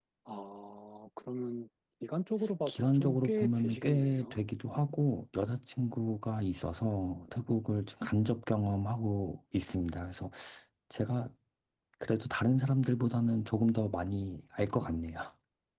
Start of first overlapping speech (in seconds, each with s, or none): 2.7 s